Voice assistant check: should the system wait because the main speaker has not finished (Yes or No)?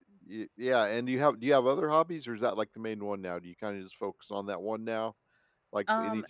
Yes